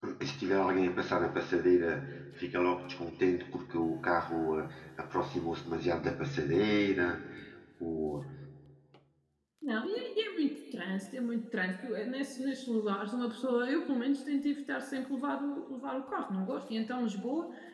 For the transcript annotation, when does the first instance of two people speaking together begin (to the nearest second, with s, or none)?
none